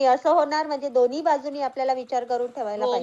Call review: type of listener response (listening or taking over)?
taking over